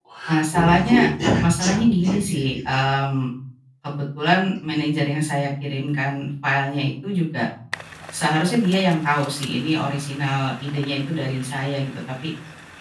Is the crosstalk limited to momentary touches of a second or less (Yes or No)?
No